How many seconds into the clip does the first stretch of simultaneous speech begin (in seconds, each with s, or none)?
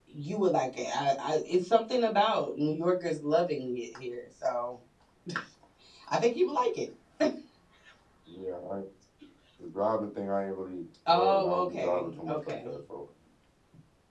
11.1 s